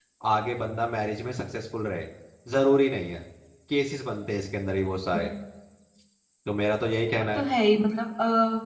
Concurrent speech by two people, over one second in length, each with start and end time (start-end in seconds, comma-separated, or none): none